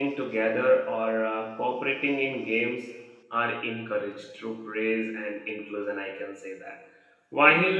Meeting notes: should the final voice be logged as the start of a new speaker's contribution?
No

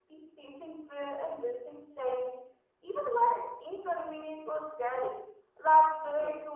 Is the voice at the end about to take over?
Yes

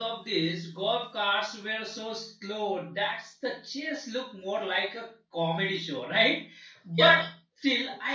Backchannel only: Yes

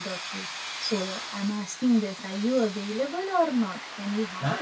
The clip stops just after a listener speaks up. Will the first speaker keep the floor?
No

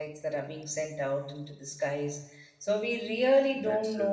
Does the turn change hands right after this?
No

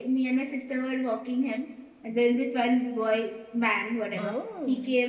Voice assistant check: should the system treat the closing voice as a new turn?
No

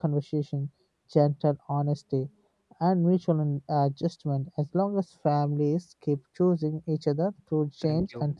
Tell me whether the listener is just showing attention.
Yes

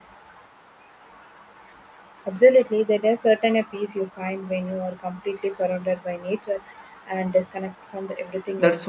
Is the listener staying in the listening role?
No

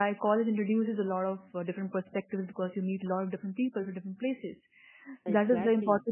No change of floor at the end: Yes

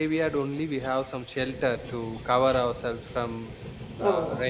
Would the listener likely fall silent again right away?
No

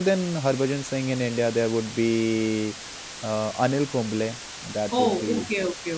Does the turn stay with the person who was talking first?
No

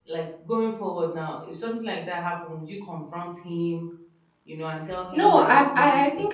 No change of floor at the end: No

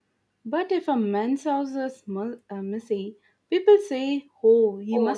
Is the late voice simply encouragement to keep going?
No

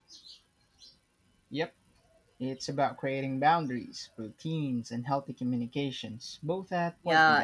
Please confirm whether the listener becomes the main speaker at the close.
Yes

